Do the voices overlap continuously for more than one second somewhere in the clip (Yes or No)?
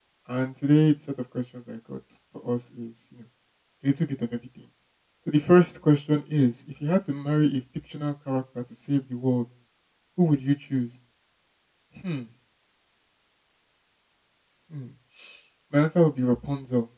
No